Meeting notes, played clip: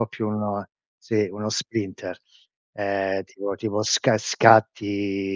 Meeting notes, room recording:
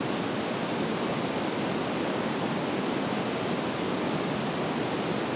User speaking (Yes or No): No